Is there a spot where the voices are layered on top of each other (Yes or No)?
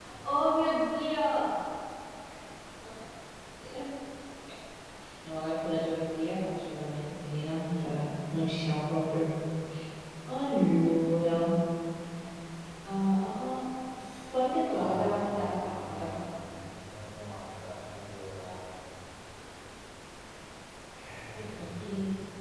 Yes